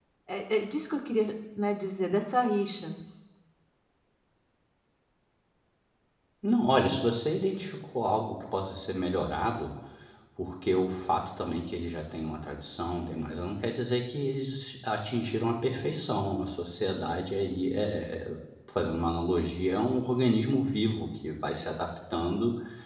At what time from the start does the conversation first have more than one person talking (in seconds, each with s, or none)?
none